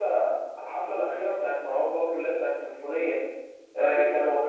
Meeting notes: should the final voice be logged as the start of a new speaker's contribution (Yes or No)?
No